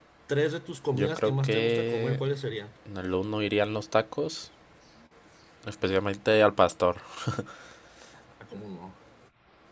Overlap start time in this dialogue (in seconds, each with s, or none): 0.9 s